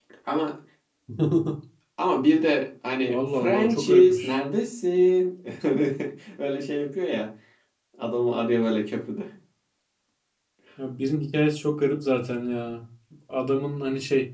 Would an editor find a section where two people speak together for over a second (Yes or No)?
Yes